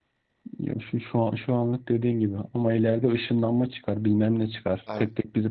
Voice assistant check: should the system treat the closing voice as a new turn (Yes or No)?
No